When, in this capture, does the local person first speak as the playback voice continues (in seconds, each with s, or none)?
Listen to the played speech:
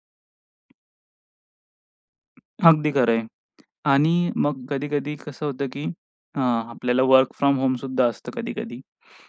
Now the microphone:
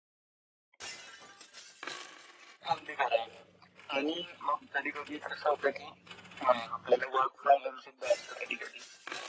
none